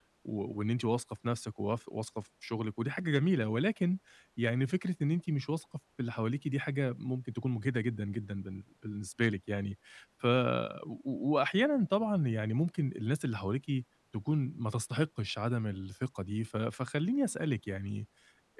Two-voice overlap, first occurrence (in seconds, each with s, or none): none